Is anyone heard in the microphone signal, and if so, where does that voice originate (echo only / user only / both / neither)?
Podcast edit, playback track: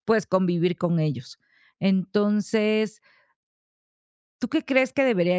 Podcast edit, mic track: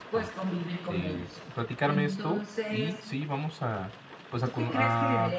both